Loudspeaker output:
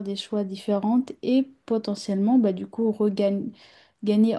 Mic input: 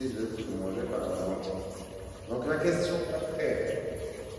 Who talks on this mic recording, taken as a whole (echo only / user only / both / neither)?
user only